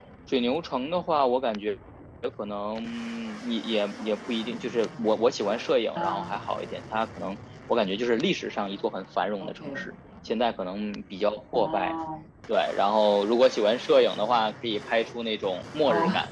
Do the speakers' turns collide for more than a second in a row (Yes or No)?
No